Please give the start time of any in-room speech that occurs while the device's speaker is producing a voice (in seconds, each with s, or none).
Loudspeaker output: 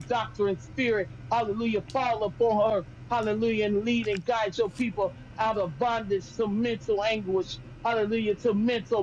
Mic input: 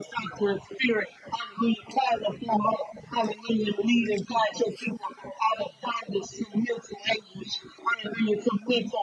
none